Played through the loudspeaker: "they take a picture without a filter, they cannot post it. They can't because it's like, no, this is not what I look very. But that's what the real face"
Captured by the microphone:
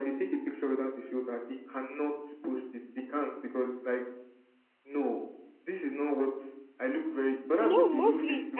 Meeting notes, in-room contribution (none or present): present